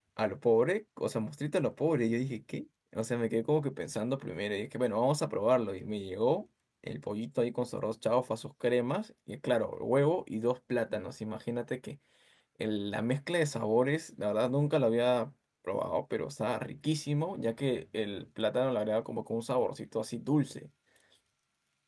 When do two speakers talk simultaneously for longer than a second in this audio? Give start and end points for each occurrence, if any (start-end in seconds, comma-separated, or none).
none